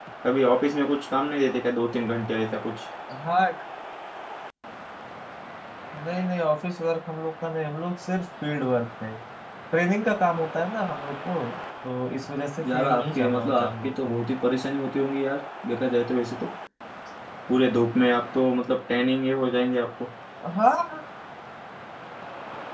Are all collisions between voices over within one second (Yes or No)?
No